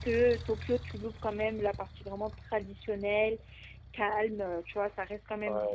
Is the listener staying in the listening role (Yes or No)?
No